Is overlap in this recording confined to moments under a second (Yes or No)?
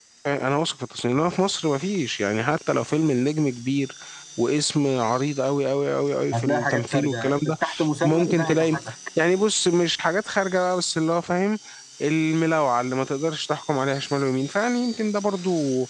No